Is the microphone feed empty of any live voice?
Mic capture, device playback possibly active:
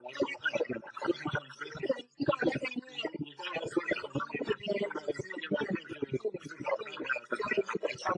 Yes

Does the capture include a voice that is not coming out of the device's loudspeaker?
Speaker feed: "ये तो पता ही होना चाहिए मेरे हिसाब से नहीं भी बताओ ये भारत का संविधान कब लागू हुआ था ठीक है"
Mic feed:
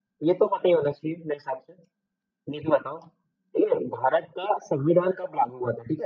No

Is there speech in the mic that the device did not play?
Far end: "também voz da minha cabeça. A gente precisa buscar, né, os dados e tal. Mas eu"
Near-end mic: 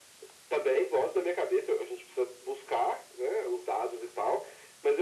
No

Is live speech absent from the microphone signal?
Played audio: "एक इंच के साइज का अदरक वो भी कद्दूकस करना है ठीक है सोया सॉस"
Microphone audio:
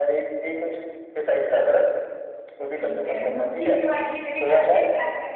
No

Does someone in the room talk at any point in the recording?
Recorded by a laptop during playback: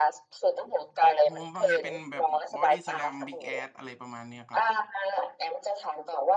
Yes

